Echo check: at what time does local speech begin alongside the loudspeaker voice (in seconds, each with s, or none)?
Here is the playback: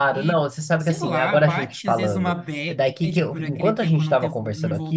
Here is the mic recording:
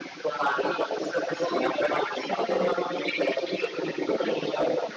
none